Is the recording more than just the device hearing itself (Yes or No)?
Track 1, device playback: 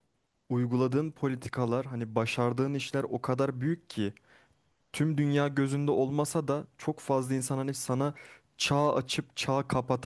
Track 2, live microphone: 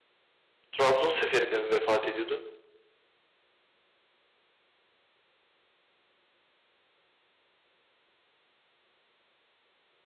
Yes